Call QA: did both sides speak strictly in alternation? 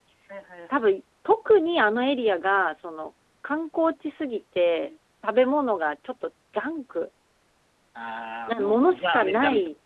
No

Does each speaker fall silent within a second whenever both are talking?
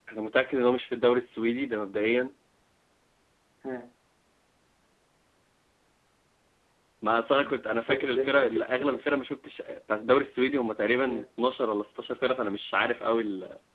No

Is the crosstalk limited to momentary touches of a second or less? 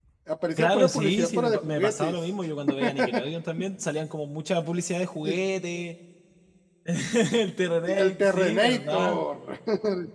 No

